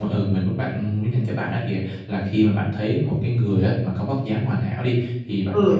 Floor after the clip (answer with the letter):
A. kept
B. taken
A